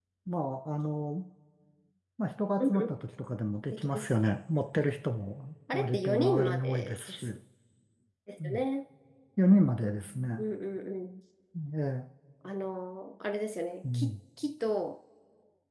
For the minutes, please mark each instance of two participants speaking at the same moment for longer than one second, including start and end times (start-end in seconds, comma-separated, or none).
5.7-7.3